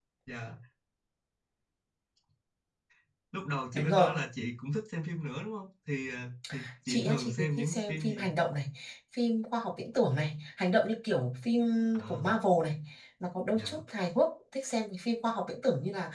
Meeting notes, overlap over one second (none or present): present